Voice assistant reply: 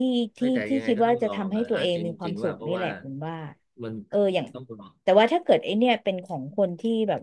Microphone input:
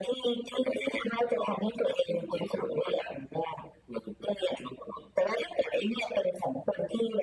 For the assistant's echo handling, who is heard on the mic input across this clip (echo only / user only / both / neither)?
echo only